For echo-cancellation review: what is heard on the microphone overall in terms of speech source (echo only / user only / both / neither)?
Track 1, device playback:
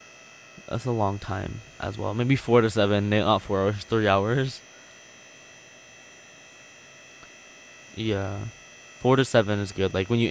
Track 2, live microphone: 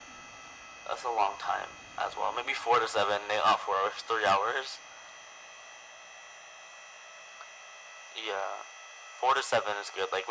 echo only